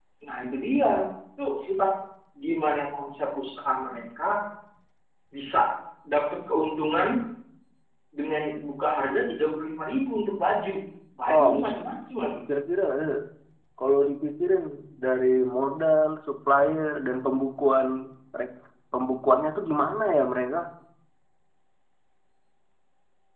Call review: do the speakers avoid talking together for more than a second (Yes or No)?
Yes